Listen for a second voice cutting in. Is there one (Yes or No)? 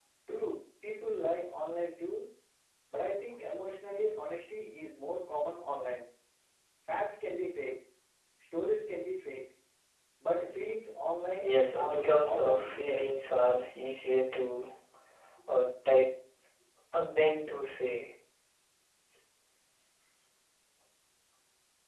Yes